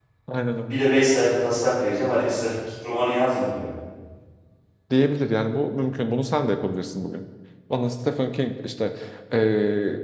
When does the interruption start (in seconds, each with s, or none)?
none